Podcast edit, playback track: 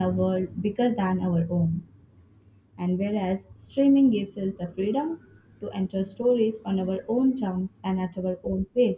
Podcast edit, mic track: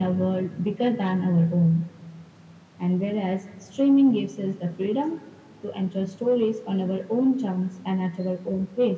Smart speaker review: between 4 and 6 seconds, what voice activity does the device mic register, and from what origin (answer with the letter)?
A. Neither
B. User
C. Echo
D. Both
C